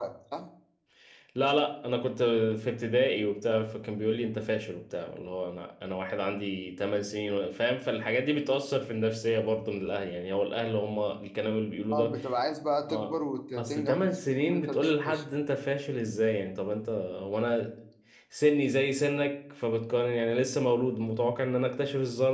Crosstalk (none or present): present